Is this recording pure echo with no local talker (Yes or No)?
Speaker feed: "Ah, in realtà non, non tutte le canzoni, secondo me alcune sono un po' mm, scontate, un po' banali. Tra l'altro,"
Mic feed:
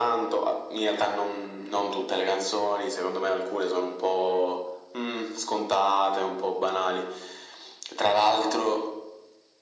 Yes